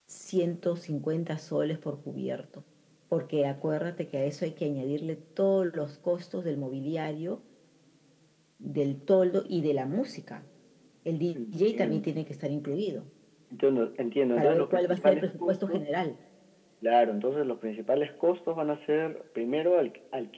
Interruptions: present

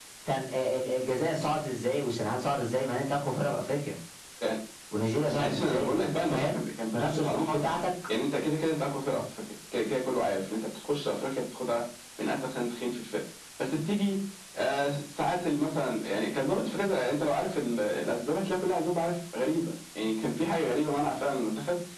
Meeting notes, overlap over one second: present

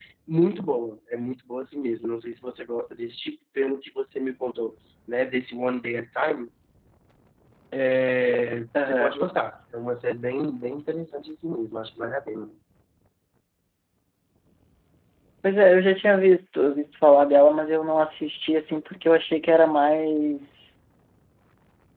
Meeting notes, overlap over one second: none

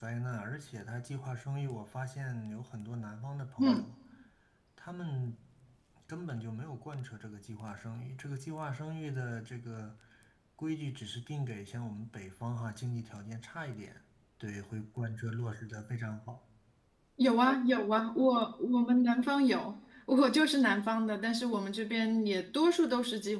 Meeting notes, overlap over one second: none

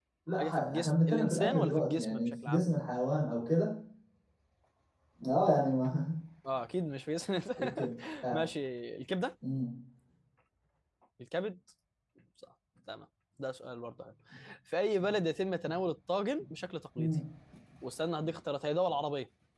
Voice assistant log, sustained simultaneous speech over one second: present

